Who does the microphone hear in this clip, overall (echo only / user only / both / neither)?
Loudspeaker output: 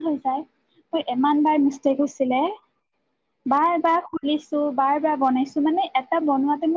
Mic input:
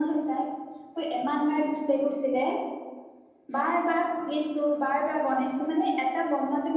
echo only